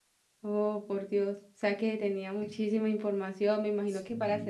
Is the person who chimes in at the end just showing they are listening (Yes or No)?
No